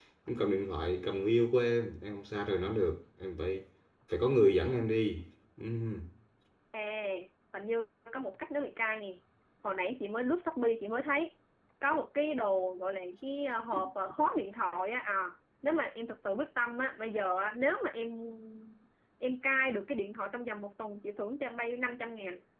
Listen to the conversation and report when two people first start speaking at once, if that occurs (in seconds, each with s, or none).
none